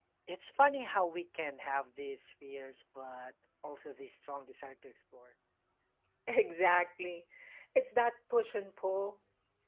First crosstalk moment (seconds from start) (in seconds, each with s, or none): none